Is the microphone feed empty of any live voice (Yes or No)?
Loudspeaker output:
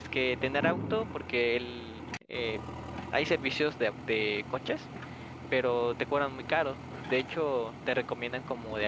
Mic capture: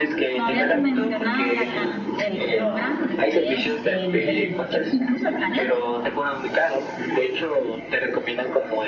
No